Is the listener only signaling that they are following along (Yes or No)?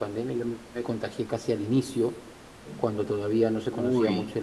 Yes